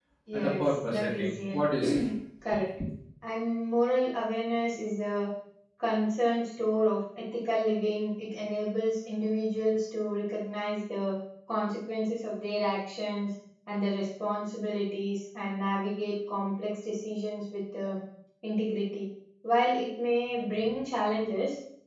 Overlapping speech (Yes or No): Yes